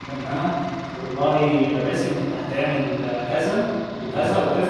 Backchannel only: Yes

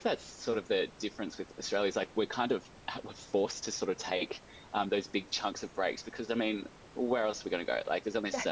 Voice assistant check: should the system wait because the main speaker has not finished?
Yes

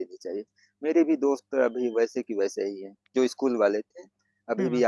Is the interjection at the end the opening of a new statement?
No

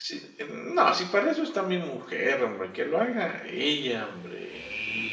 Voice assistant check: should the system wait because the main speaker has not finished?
No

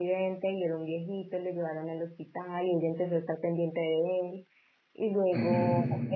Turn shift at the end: No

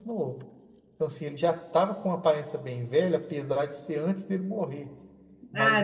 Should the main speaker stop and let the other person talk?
Yes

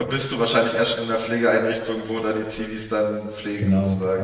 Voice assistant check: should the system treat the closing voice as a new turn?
Yes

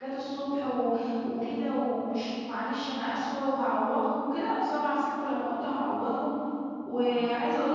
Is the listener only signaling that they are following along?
Yes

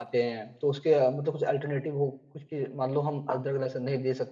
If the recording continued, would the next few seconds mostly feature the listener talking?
No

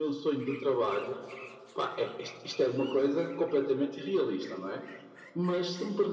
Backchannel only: Yes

